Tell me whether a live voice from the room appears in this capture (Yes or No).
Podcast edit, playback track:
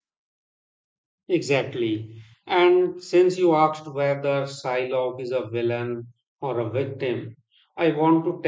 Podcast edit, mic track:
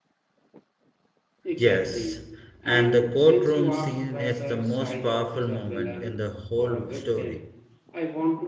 Yes